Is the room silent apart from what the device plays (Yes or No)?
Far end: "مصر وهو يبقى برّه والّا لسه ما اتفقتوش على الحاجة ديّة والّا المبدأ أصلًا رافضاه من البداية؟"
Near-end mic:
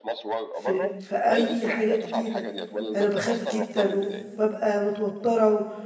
No